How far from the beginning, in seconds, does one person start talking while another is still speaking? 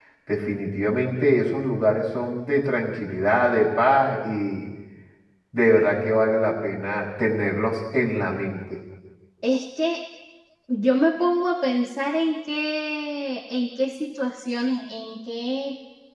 none

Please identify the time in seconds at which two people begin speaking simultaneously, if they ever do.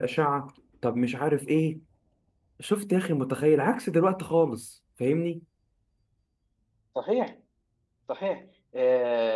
none

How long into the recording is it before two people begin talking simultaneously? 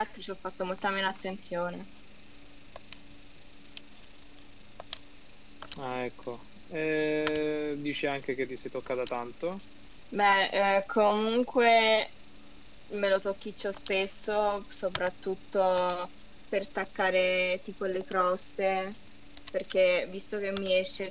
none

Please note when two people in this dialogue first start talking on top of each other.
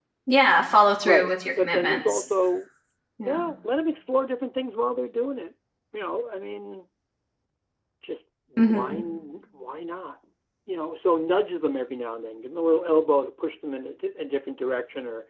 1.0 s

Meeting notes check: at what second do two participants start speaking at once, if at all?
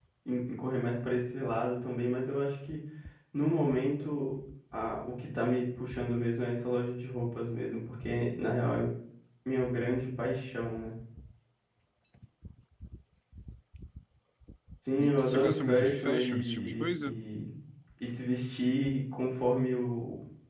15.0 s

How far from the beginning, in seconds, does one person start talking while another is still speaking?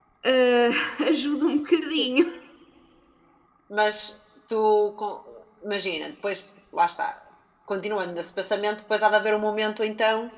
none

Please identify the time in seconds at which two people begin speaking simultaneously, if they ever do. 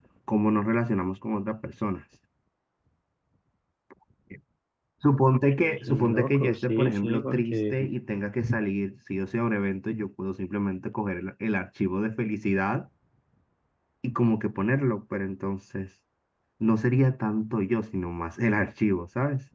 5.9 s

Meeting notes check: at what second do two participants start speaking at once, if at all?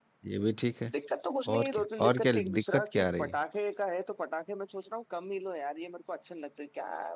1.6 s

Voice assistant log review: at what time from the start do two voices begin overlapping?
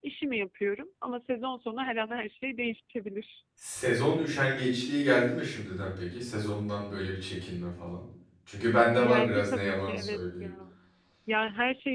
9.0 s

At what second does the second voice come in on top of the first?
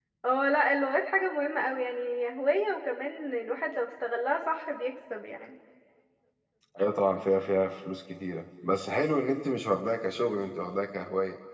none

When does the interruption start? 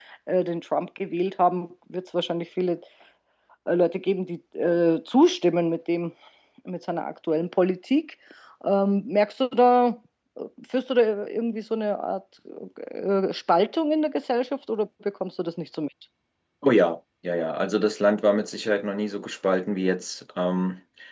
none

